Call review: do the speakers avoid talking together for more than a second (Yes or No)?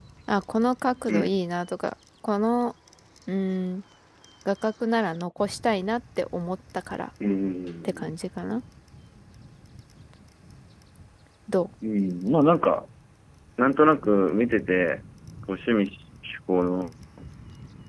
Yes